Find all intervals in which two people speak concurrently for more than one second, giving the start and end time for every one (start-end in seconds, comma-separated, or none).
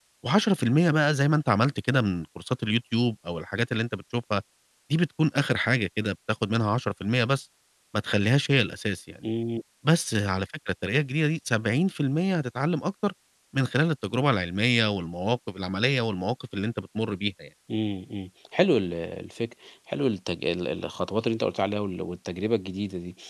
none